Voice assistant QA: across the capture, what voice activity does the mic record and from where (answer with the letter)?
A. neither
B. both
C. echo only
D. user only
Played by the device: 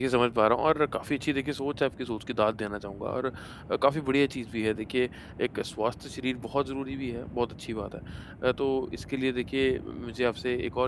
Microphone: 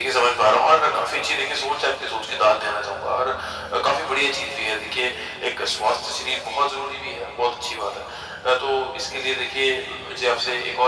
C